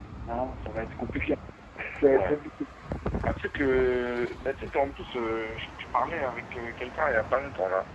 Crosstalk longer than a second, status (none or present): none